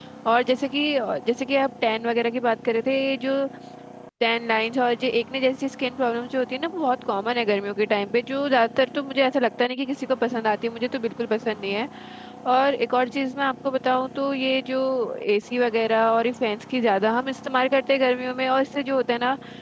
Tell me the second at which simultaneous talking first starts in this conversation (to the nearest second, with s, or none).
none